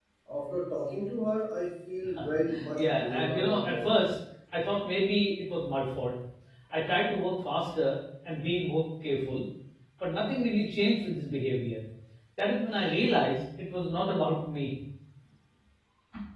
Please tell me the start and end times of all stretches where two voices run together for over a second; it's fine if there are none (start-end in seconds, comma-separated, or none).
2.8-4.0